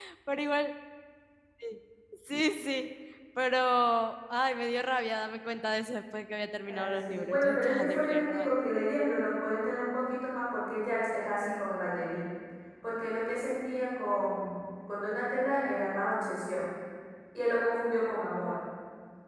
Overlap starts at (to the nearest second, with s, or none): 7 s